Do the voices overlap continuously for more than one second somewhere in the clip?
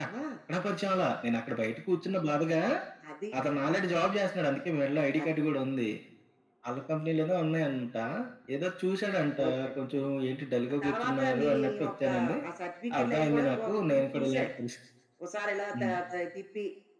Yes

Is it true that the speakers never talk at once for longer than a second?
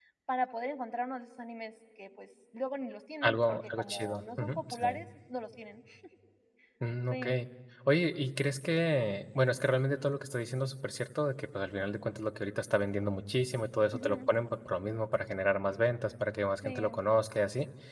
No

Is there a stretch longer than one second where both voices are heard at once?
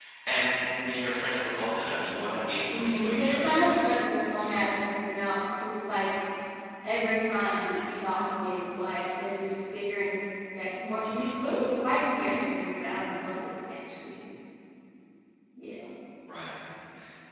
Yes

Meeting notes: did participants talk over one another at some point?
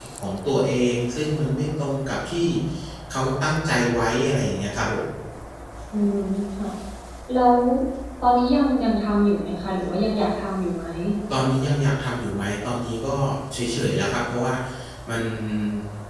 No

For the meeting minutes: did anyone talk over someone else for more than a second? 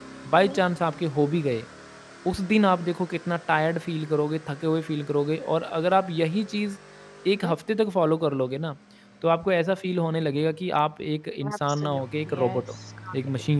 Yes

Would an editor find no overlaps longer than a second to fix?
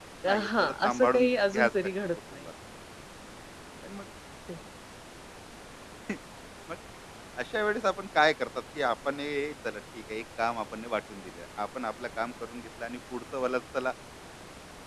No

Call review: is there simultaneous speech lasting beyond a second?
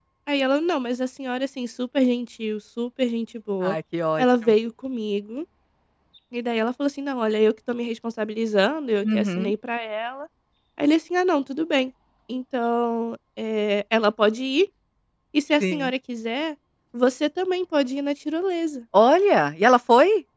No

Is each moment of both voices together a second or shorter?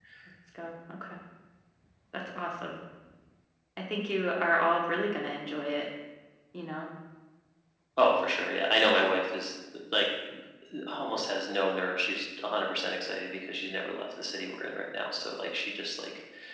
Yes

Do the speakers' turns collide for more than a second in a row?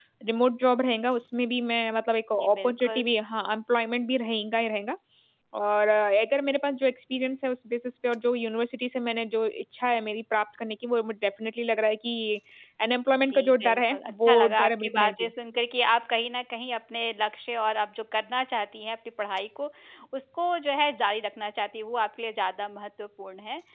Yes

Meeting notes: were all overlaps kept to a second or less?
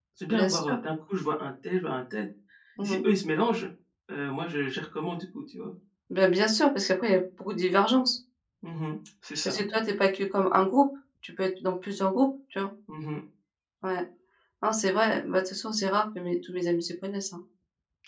Yes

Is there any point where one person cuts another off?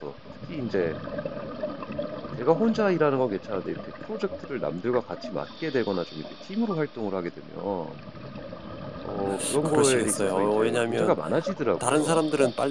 Yes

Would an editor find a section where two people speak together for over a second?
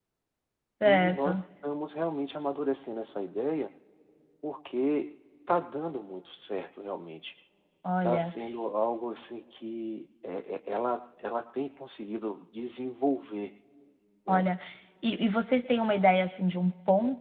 No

